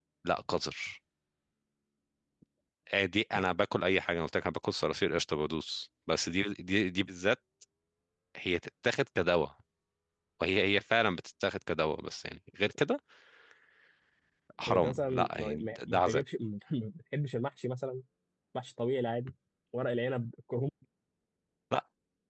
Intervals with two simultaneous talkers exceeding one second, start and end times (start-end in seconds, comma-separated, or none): 14.7-16.2